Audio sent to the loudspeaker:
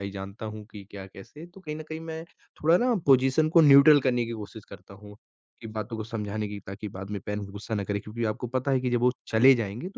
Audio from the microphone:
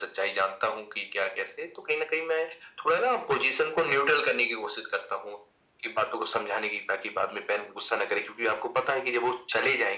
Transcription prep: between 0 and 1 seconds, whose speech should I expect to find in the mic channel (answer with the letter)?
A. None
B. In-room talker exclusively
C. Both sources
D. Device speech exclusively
D